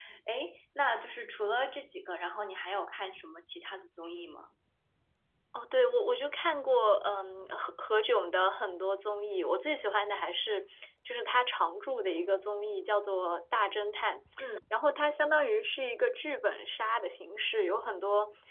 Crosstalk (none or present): none